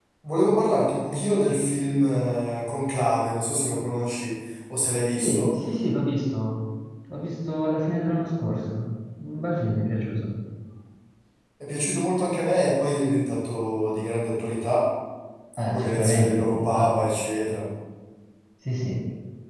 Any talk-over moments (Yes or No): Yes